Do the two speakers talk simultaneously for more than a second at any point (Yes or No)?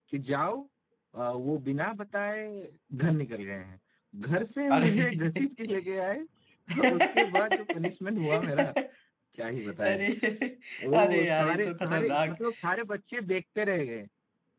Yes